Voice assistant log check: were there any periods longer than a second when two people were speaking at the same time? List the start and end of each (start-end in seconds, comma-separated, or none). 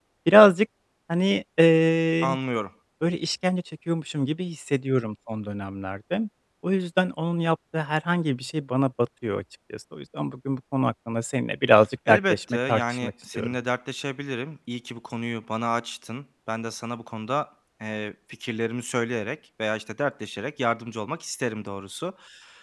12.1-13.6